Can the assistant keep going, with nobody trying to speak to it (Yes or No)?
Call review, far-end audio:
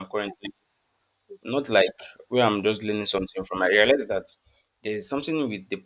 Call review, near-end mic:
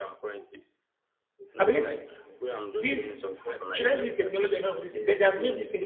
No